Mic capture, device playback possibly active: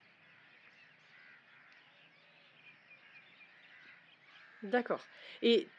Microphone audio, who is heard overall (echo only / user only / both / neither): user only